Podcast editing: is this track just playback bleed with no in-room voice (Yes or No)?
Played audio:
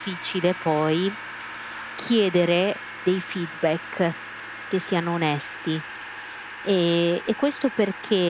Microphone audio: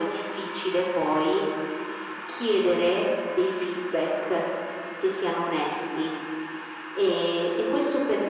Yes